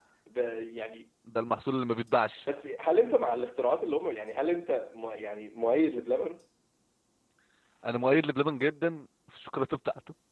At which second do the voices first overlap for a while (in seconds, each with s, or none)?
none